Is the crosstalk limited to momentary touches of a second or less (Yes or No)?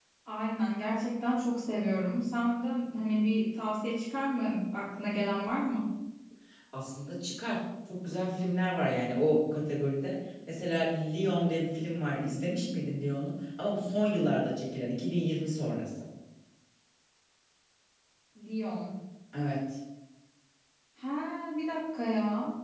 Yes